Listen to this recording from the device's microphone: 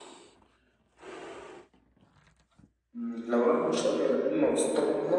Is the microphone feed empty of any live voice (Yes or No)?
Yes